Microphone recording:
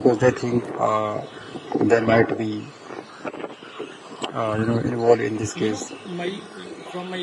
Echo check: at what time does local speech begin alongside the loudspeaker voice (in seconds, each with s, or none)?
5.5 s